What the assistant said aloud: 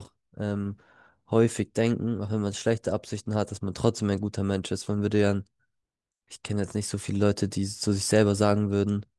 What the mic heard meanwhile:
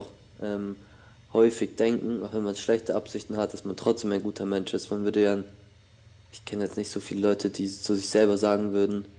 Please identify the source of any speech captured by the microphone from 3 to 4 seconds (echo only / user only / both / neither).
echo only